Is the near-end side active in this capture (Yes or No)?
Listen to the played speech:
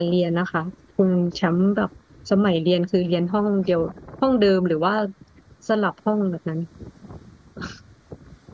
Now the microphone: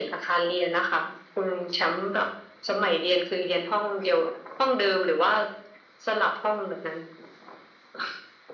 No